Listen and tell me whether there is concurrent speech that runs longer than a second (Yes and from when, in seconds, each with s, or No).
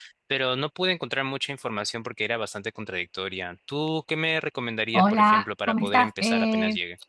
Yes, from 4.9 s